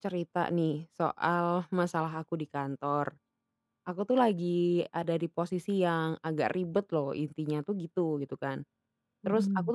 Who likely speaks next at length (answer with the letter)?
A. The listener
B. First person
B